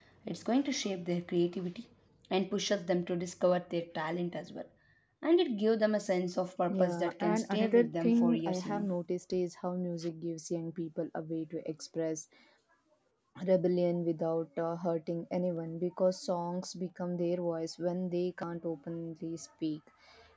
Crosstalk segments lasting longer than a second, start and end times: 6.7-8.9

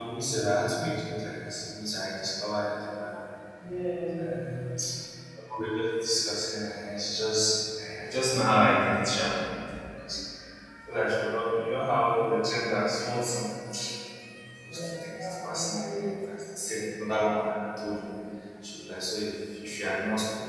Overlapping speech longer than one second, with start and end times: 14.7-16.1

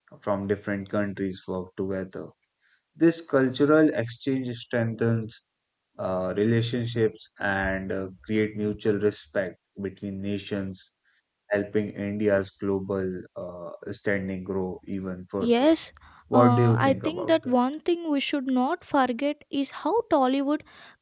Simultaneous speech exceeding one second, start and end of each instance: 16.3-17.6

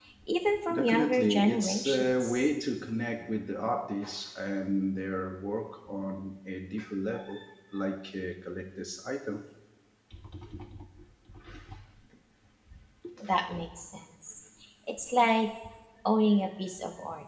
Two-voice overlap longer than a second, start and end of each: 0.7-2.5

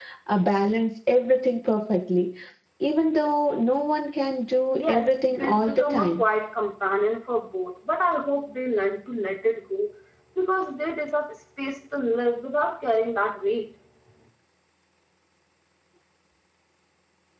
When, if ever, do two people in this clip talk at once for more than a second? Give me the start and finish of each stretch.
4.7-6.2

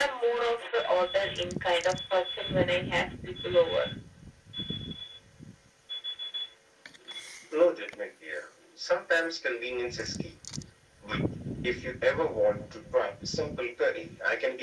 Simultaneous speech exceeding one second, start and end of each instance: none

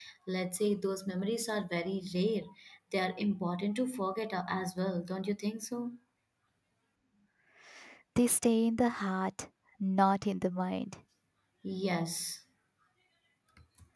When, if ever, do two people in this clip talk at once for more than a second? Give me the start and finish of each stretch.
none

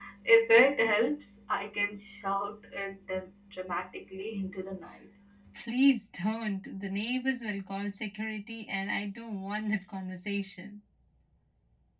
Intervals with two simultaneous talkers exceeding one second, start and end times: none

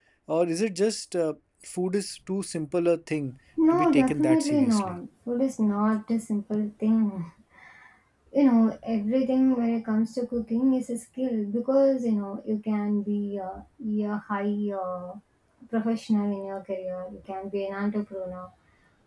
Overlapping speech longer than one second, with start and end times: 3.7-5.0

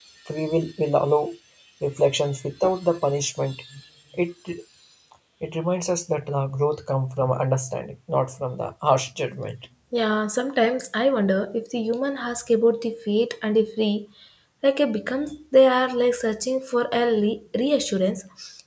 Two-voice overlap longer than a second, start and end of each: none

